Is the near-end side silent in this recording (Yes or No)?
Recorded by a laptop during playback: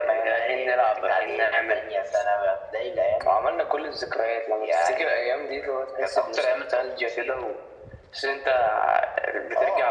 Yes